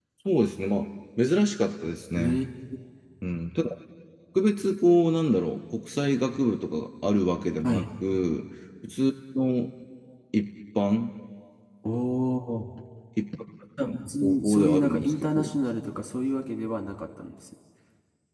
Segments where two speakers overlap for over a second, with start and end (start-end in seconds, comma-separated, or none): 14.2-15.5